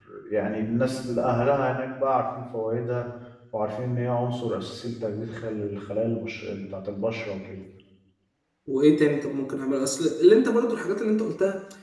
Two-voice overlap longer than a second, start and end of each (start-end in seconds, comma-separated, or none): none